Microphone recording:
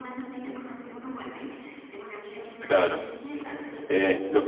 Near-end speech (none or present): present